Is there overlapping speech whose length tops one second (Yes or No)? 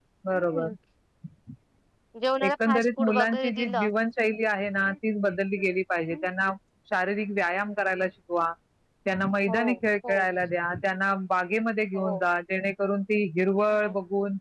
Yes